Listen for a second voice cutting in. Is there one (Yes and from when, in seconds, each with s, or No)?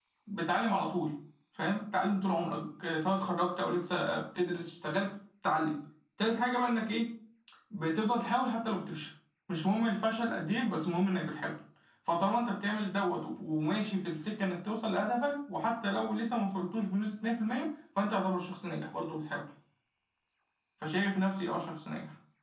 No